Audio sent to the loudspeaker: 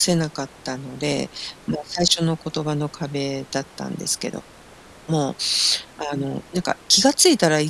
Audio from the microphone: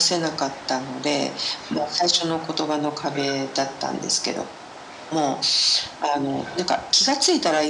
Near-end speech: none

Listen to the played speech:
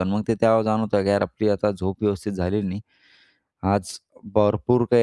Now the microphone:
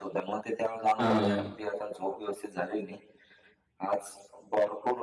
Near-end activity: present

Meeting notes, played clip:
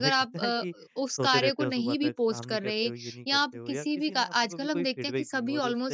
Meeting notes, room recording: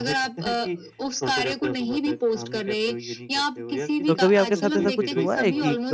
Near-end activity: present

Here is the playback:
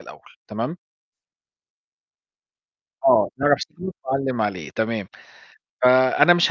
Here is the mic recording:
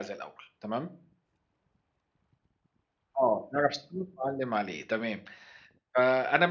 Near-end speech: none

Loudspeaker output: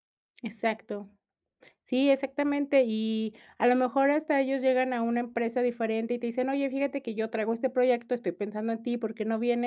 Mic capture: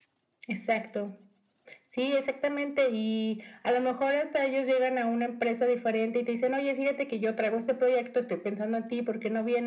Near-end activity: none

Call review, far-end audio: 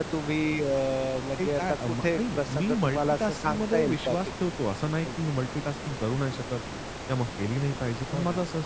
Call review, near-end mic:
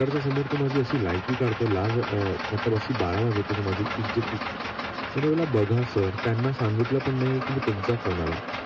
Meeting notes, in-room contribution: present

